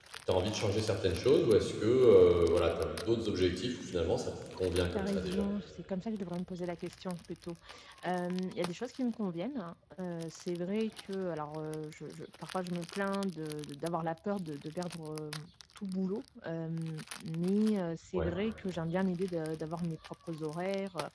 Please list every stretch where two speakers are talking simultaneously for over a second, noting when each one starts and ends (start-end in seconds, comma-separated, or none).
none